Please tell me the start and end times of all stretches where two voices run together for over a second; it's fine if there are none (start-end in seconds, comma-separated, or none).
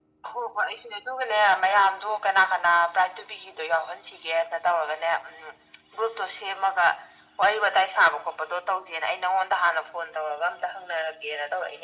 none